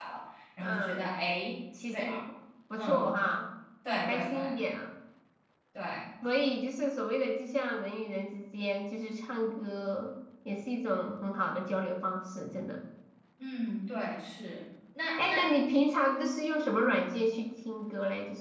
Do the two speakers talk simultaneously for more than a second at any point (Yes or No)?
No